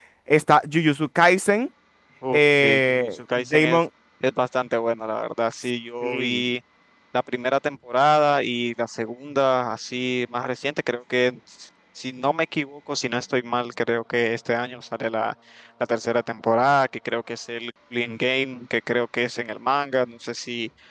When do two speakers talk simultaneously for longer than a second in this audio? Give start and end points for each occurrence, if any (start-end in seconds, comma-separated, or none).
2.3-3.8